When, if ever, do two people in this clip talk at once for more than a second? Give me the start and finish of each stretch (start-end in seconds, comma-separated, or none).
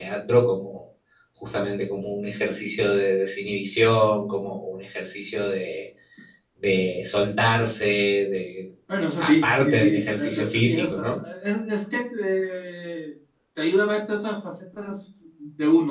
9.2-11.0